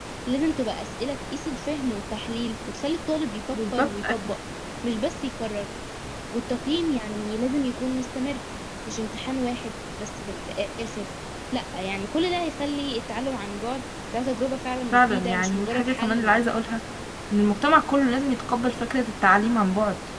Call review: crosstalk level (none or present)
present